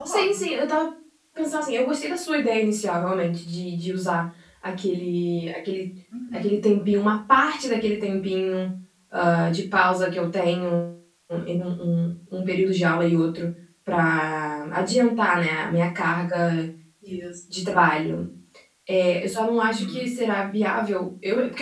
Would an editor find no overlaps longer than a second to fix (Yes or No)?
Yes